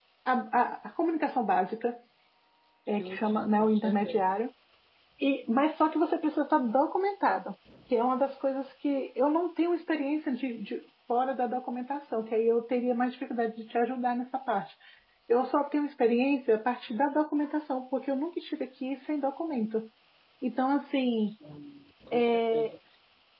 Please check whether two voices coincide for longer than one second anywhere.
Yes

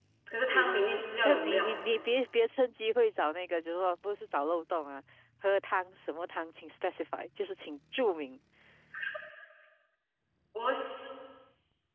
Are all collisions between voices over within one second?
No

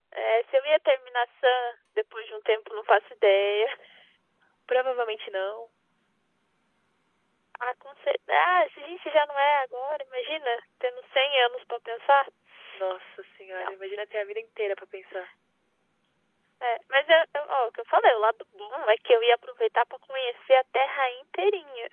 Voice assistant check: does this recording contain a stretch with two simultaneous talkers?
No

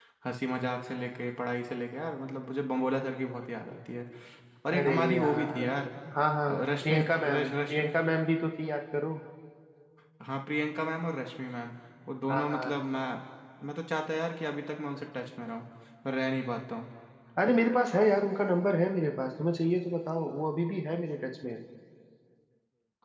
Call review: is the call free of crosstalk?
No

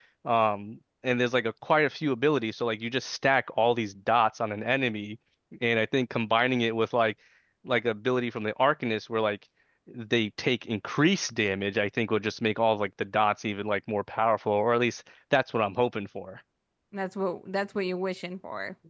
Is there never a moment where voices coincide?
Yes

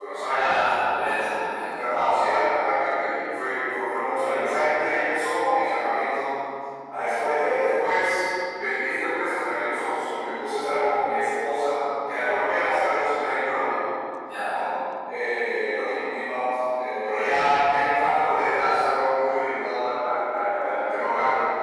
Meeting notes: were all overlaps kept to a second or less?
Yes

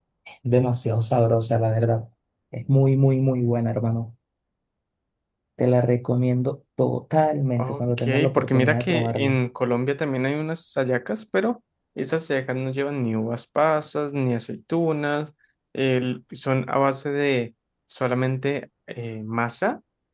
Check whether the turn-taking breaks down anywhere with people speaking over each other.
Yes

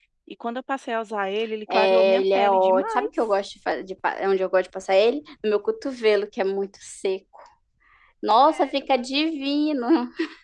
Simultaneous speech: Yes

